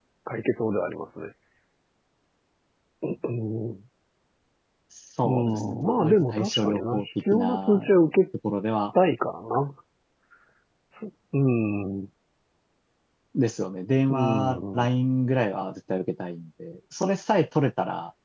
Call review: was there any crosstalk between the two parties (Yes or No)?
Yes